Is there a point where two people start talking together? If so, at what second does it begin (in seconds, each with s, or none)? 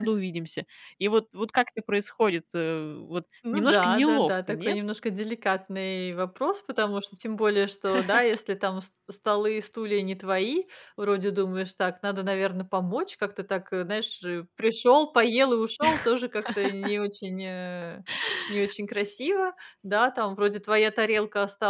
3.5 s